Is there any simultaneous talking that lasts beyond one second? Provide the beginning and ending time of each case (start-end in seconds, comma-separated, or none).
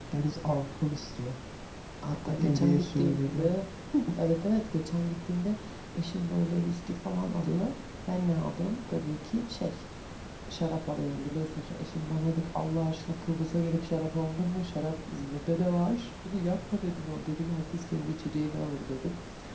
2.3-3.6